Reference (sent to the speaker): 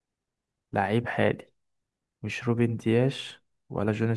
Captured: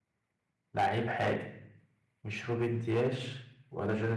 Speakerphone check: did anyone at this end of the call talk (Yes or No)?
No